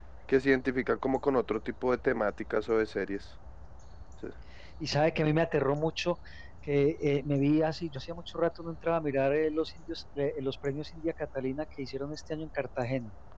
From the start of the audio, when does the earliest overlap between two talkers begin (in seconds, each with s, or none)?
none